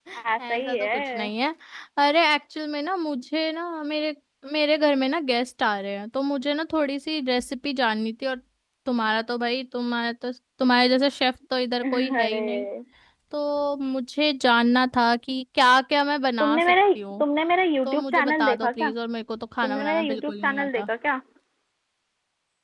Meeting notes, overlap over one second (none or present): present